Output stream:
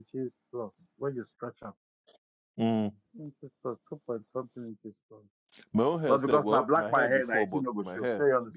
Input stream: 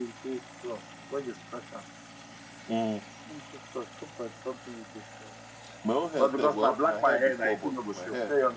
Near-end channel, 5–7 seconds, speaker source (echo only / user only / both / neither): echo only